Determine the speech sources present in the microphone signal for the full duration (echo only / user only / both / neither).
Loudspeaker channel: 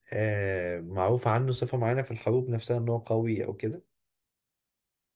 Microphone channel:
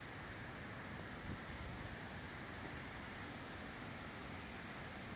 neither